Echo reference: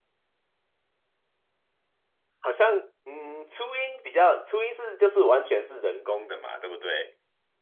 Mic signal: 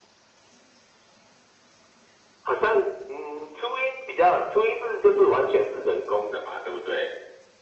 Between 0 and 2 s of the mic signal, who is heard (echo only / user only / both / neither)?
neither